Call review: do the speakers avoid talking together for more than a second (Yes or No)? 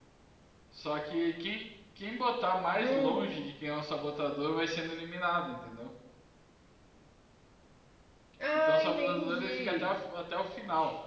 No